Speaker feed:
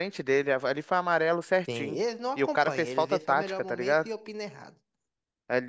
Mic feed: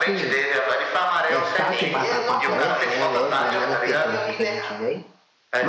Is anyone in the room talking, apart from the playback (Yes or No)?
Yes